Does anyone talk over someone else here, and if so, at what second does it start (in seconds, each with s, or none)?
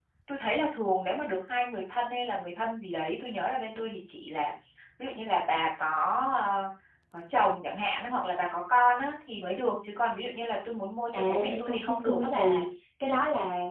11.1 s